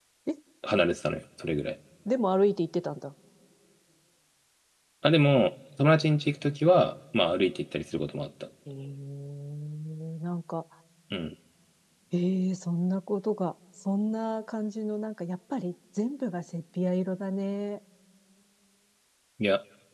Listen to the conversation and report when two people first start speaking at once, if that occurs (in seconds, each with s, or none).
none